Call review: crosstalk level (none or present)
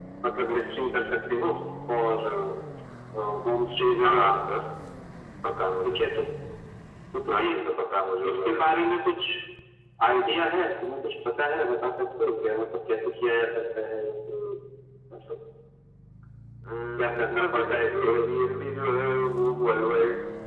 present